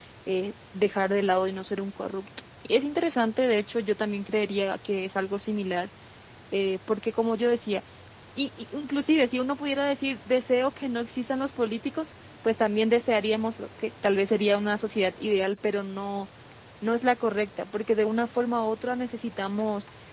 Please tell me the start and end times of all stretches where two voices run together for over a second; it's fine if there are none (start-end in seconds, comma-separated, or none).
none